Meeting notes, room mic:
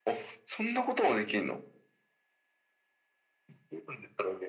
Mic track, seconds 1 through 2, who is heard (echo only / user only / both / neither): echo only